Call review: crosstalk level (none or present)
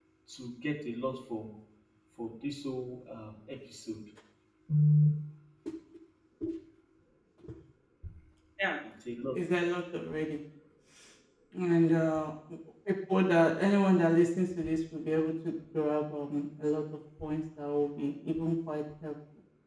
none